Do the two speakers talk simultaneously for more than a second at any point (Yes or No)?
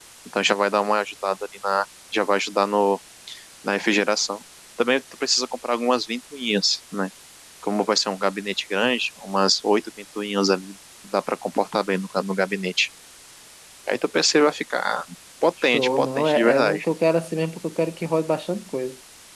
Yes